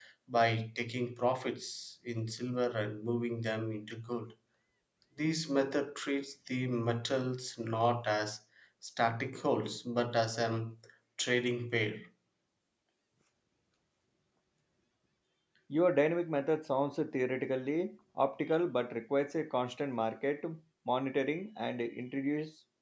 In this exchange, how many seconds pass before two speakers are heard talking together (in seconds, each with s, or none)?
none